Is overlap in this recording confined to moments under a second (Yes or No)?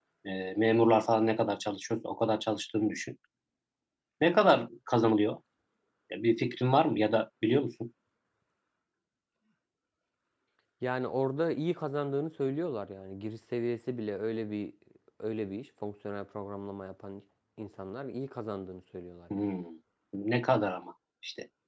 Yes